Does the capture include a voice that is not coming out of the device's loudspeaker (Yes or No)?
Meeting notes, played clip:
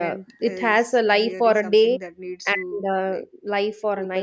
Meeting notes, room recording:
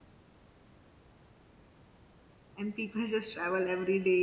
Yes